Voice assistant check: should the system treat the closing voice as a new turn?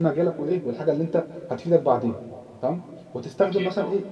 No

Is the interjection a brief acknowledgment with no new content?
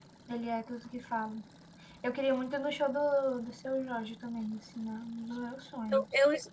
No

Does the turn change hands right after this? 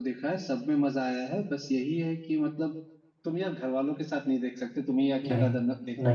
No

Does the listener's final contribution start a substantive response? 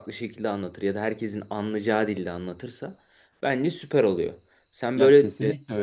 Yes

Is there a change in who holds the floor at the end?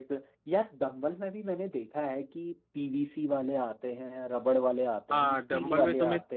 Yes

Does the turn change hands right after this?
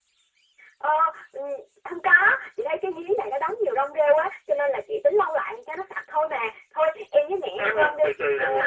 Yes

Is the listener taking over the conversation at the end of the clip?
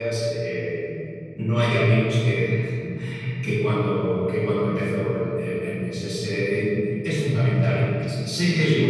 No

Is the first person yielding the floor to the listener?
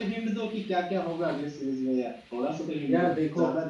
Yes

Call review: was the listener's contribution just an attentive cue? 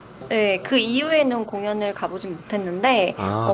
Yes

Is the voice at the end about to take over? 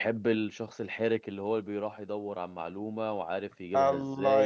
Yes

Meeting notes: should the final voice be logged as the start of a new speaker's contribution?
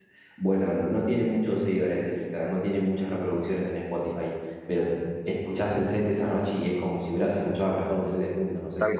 Yes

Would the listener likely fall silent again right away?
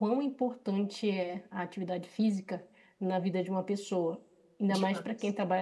Yes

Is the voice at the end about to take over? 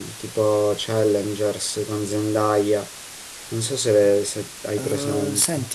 Yes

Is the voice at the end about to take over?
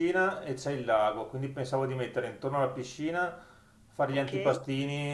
No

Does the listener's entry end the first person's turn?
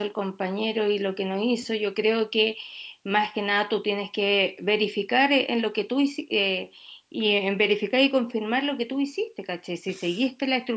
No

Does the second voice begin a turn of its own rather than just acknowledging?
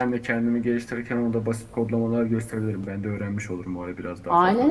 Yes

